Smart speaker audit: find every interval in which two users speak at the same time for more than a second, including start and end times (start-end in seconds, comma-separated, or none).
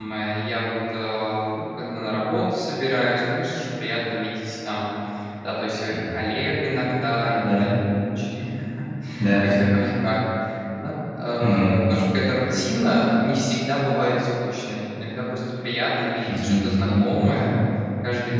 16.3-17.6